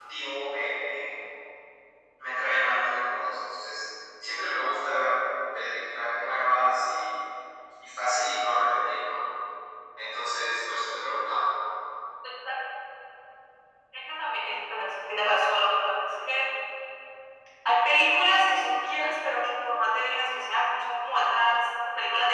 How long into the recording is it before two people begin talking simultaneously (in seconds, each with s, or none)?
none